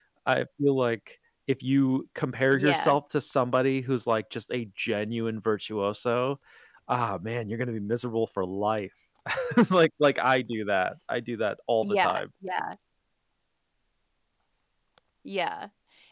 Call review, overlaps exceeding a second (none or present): none